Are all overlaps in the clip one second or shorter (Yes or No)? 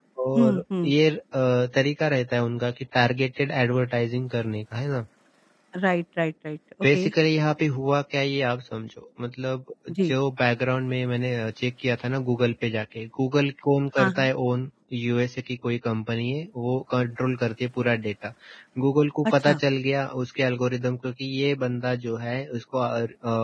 Yes